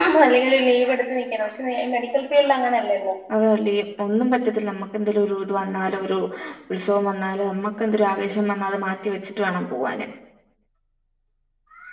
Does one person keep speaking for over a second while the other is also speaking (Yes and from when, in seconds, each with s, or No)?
No